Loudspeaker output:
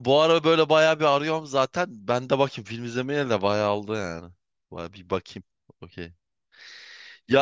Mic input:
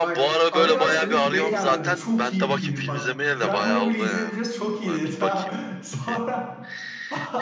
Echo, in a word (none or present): present